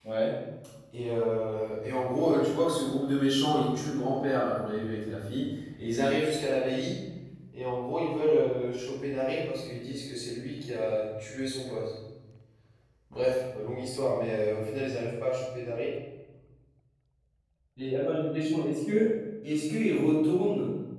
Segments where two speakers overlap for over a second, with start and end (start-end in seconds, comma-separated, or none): none